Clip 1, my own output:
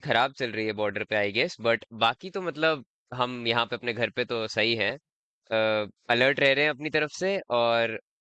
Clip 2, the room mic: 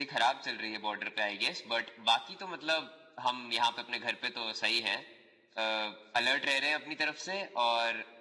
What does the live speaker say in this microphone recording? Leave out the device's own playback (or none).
none